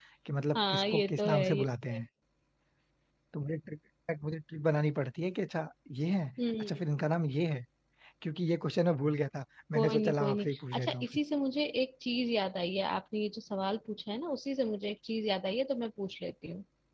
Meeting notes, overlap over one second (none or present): present